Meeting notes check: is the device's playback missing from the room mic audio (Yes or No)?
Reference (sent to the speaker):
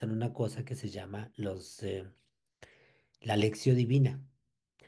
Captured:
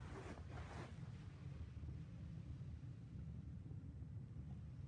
Yes